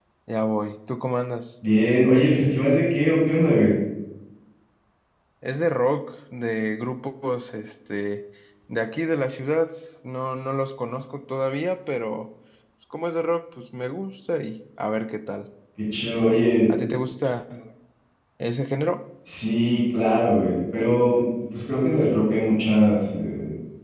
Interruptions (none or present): none